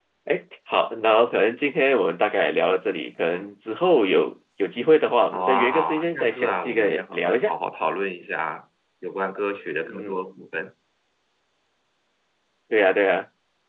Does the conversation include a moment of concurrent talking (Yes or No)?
Yes